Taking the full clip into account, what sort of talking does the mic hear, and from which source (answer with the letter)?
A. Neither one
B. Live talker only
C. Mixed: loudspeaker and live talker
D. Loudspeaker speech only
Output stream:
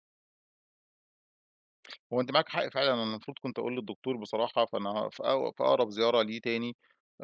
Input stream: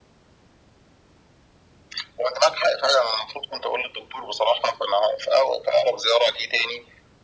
D